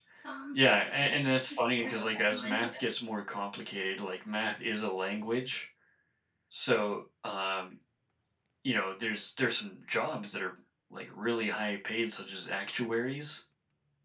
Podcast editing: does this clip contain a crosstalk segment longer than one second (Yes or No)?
Yes